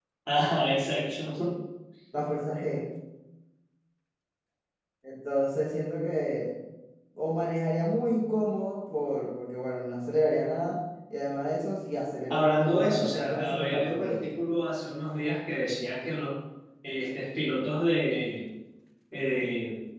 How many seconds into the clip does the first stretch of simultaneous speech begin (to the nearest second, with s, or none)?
12 s